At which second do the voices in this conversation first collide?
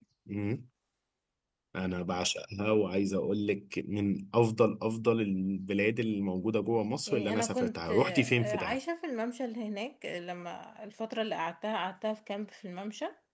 7.1 s

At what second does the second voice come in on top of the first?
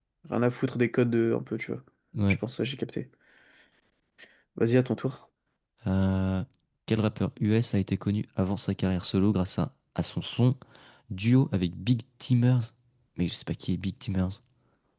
none

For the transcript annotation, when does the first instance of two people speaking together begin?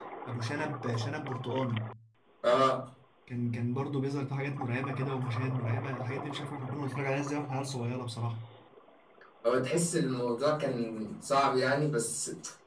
none

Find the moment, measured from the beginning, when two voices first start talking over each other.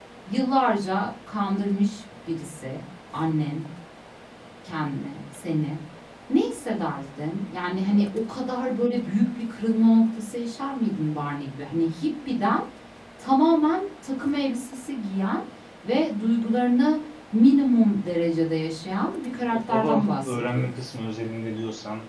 19.3 s

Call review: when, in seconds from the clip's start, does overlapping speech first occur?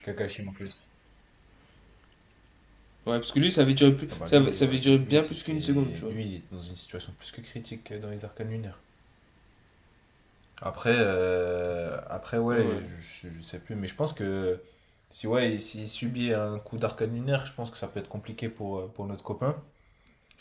4.1 s

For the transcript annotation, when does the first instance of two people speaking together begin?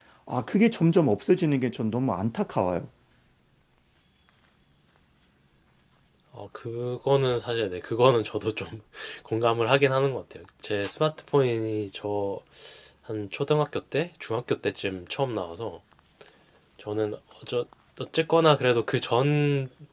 none

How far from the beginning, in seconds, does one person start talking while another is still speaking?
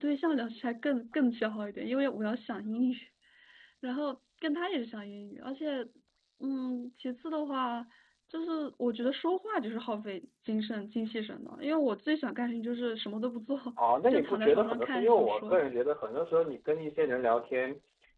14.1 s

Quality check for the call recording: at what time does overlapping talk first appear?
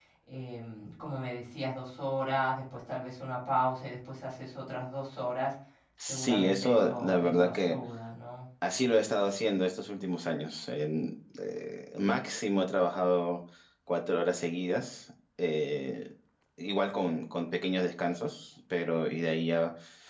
6.1 s

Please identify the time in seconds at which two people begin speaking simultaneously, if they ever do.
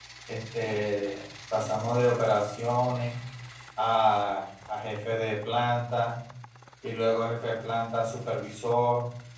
none

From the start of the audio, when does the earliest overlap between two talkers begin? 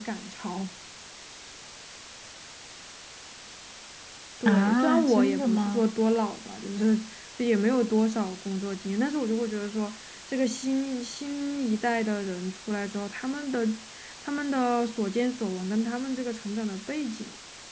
4.5 s

